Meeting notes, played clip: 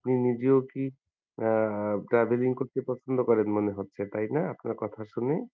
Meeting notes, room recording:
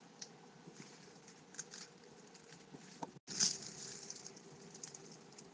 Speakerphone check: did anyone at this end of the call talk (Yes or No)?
No